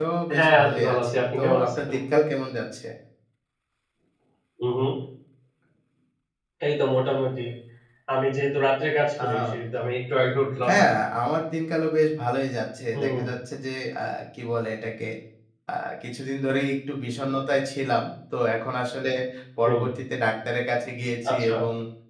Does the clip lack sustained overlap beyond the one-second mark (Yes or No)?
No